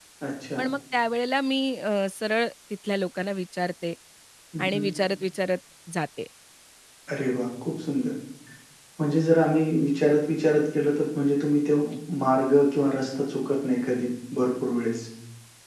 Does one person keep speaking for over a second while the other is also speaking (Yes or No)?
No